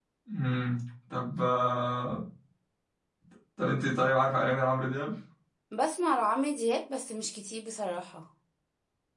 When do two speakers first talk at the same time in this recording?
none

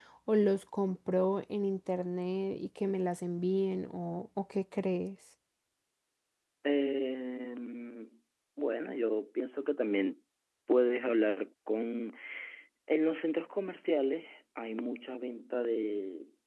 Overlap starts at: none

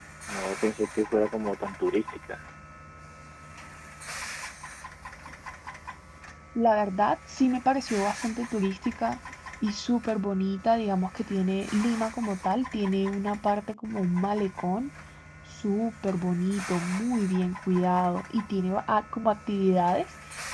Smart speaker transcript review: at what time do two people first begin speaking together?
none

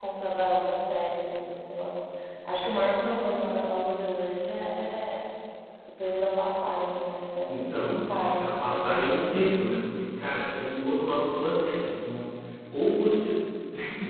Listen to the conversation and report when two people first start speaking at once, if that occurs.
7.5 s

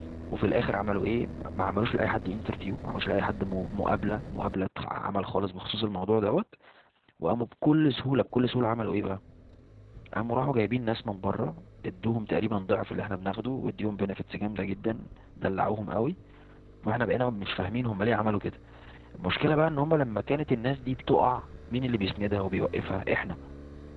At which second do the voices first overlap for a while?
none

